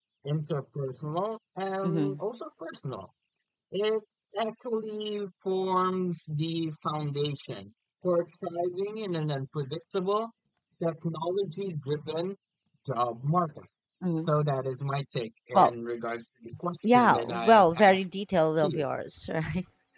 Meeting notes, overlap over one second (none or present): present